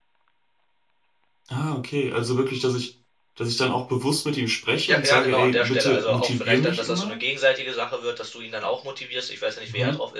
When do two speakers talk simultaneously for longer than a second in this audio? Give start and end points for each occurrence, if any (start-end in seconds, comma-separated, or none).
4.8-7.2